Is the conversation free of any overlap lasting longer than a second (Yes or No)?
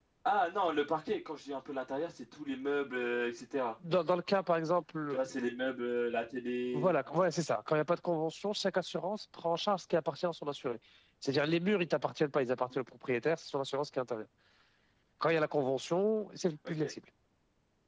Yes